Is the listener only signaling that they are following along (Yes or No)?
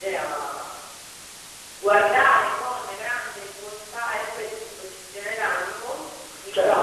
No